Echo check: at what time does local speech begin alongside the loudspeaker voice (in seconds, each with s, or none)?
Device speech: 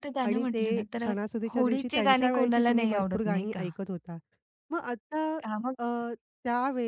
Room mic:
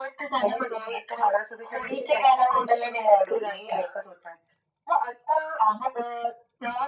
none